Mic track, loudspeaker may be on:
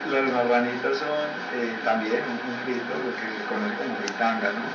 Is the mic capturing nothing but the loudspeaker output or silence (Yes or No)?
Yes